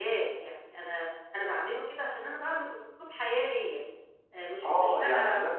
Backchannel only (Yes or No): No